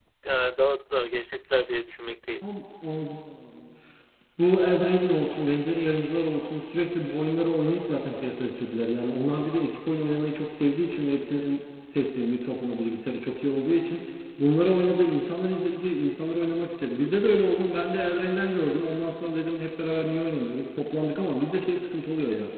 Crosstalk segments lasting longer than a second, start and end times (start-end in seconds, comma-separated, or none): none